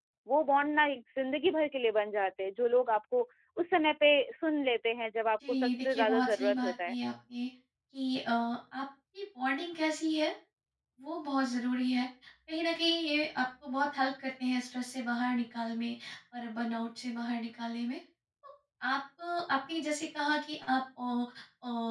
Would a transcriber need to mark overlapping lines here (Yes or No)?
Yes